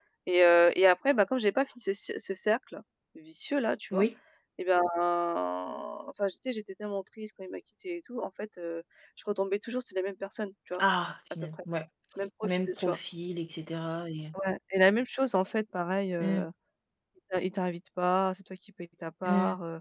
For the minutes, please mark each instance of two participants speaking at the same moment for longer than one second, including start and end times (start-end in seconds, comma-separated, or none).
none